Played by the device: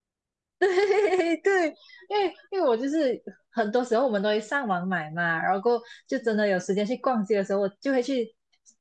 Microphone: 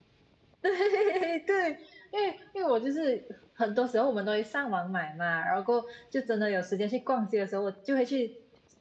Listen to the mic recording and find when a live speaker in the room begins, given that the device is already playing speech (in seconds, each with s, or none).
none